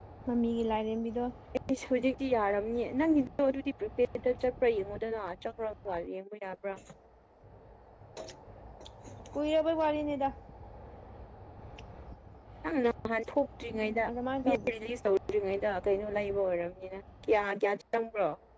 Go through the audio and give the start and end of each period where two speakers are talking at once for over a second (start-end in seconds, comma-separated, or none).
none